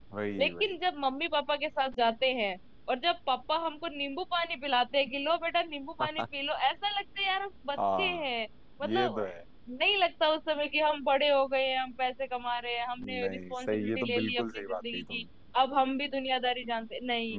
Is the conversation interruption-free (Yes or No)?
No